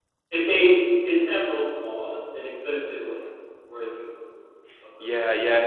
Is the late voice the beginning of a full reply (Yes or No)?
Yes